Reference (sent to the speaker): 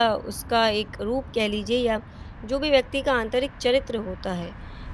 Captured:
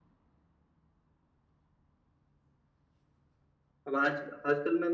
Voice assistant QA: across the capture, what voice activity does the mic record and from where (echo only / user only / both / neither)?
user only